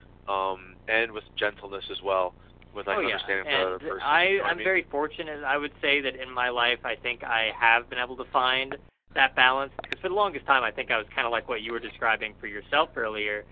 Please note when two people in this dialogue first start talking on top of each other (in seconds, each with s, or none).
2.9 s